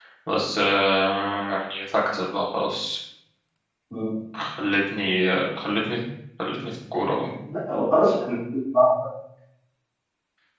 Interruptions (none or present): none